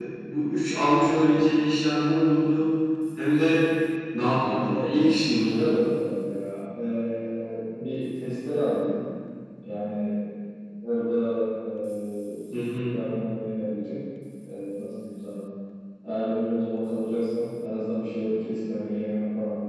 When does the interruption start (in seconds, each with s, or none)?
4.5 s